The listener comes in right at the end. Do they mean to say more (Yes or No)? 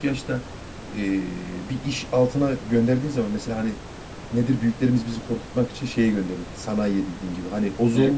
No